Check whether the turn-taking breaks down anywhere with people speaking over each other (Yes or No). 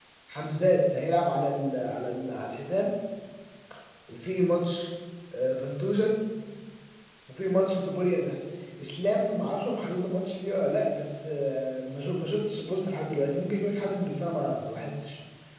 No